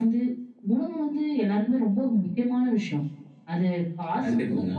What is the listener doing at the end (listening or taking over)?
listening